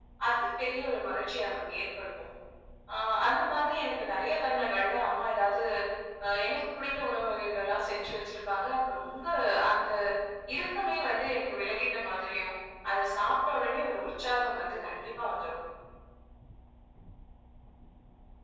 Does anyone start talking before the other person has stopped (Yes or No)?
No